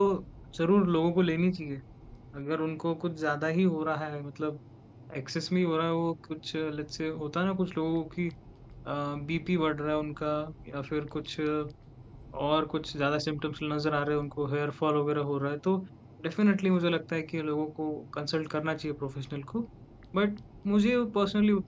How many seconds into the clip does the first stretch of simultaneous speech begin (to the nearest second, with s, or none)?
none